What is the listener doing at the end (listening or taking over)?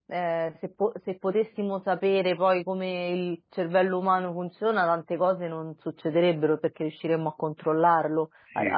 listening